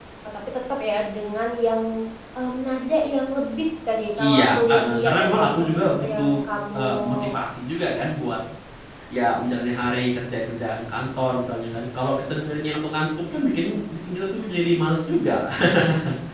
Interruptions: present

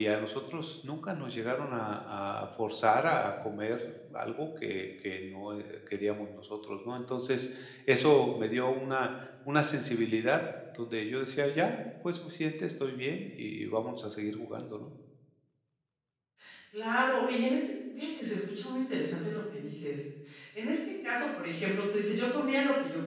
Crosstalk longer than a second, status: none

